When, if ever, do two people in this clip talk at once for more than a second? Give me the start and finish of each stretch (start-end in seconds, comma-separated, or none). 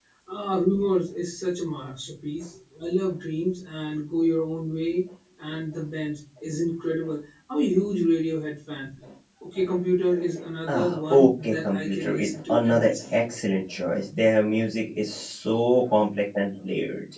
10.7-13.2